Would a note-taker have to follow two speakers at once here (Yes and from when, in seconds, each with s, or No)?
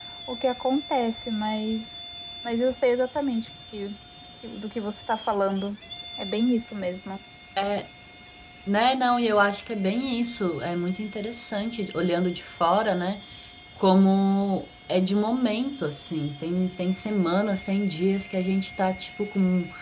No